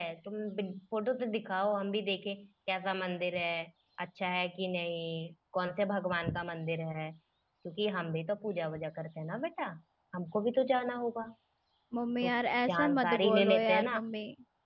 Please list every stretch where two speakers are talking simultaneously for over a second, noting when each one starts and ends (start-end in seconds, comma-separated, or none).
12.7-14.0